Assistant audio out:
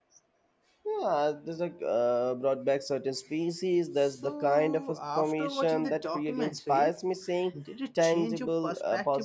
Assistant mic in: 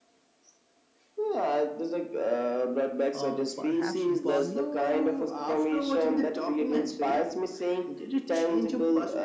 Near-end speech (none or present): present